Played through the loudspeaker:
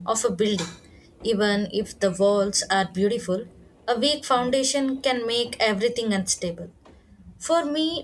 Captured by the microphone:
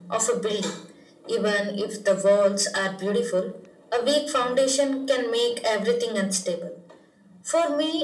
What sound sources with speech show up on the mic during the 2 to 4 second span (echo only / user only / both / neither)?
echo only